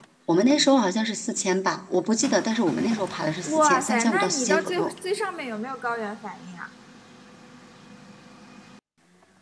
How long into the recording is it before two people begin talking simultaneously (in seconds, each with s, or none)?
3.4 s